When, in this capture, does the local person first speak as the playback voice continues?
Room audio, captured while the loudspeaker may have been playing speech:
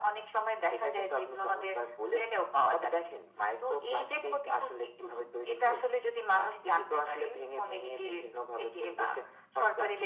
none

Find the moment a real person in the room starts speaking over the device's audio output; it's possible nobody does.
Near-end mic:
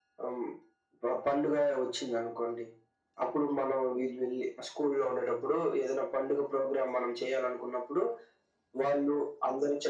none

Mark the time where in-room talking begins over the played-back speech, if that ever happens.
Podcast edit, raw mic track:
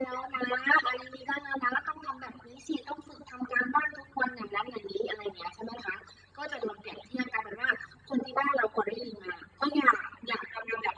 none

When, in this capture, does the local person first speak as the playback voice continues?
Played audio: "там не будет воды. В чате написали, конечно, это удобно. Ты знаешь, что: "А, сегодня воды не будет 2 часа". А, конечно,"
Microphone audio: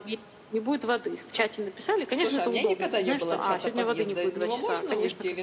2 s

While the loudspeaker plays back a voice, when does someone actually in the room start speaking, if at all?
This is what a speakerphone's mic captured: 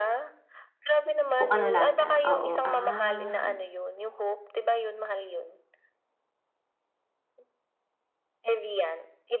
1 s

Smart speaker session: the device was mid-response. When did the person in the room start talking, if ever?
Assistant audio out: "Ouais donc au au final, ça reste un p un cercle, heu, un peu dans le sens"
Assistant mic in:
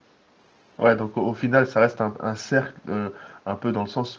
none

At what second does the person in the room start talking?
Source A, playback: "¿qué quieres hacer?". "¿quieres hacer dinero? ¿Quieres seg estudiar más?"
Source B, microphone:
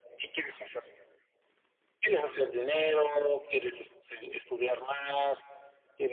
none

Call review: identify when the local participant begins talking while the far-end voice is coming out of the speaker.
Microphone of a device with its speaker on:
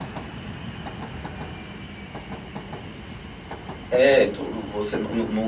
4 s

